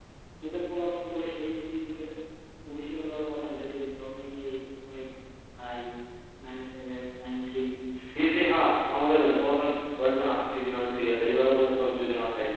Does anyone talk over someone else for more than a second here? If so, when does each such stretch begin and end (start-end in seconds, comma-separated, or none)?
none